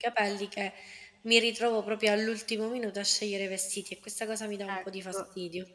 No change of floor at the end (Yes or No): No